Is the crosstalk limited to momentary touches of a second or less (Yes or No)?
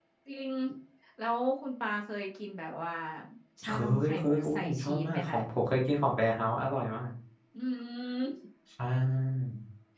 No